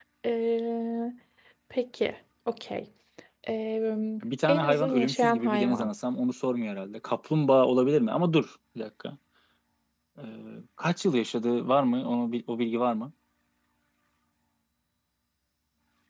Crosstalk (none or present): present